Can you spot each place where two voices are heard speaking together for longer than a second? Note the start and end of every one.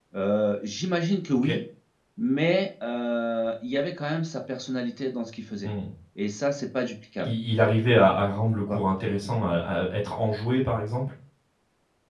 none

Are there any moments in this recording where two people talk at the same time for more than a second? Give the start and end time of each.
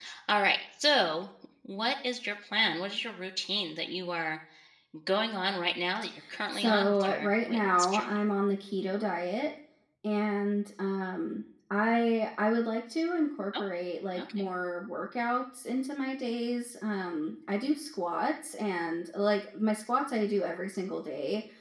6.5-8.2

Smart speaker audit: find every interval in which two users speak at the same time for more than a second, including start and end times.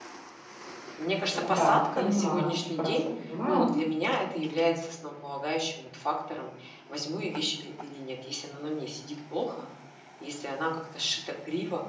1.3-3.0

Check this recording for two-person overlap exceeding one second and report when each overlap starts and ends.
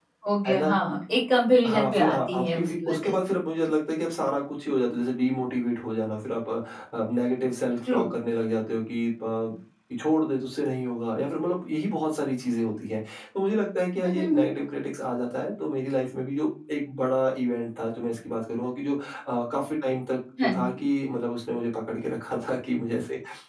1.7-3.1

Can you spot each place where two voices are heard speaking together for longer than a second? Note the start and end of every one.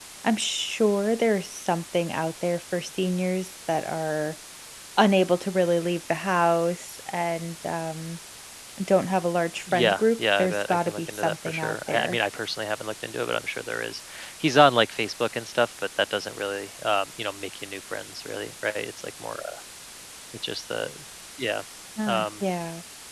9.7-12.2

